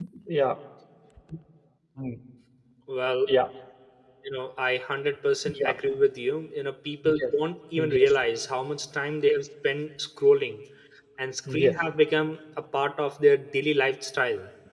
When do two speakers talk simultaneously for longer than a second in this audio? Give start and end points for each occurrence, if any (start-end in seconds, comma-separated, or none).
none